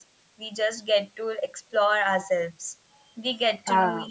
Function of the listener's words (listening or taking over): listening